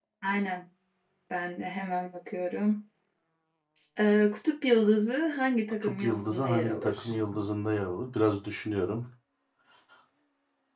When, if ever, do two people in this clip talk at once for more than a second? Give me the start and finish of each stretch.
5.8-7.1

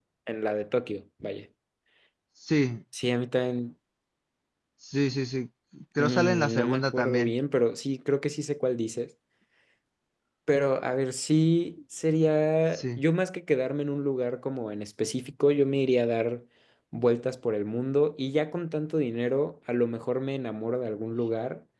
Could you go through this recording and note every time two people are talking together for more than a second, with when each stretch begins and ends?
6.0-7.3

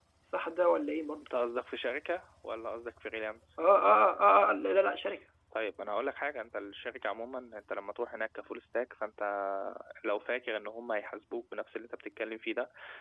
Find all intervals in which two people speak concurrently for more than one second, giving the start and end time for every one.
none

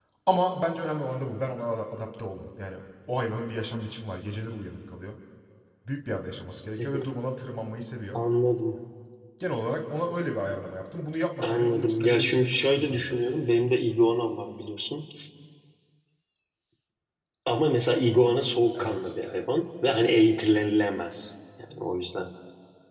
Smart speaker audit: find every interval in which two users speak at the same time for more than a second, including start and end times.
11.4-13.2

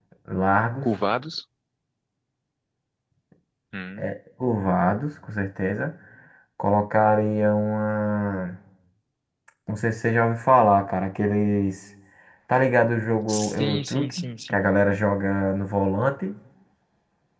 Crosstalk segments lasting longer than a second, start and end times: 13.3-14.7

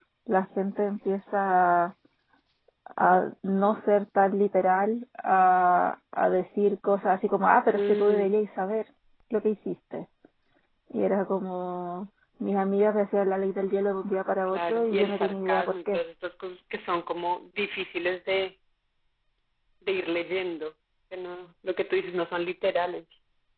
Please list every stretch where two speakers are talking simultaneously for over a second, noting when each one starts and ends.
14.5-16.0

